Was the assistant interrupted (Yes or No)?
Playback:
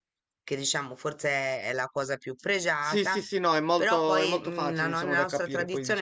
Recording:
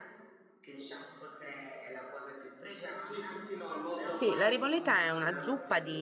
Yes